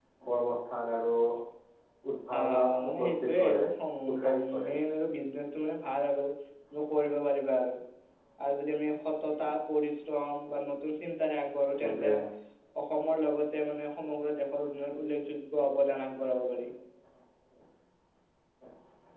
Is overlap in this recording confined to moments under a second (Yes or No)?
No